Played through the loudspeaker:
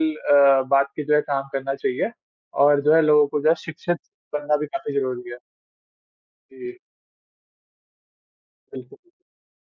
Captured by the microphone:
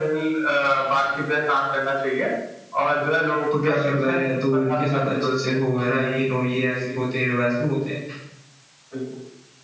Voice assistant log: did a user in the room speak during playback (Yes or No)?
Yes